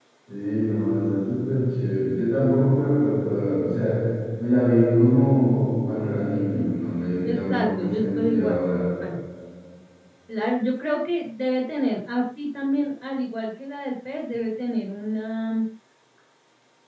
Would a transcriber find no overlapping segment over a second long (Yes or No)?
No